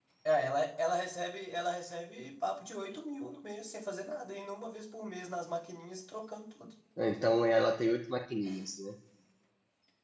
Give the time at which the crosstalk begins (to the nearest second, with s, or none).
none